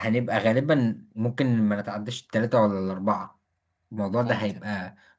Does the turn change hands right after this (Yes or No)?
No